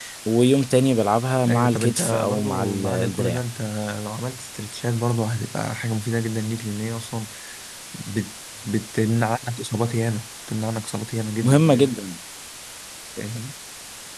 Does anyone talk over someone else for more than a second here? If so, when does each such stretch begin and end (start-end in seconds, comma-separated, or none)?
1.5-3.4